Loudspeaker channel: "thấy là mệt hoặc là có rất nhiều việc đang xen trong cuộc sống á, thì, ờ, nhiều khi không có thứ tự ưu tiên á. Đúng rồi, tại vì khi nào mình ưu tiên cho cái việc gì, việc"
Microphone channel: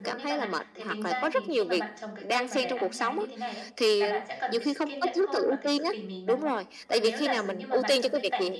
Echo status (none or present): present